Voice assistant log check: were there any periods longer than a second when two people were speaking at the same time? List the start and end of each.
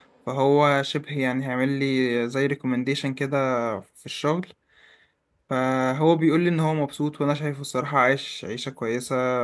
none

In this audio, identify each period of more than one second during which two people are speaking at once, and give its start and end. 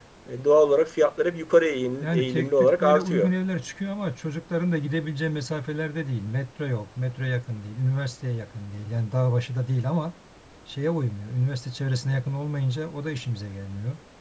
2.0-3.3

